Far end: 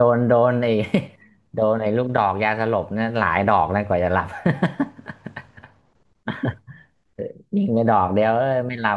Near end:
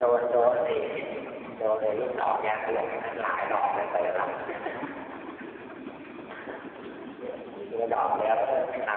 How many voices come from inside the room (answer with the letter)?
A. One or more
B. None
B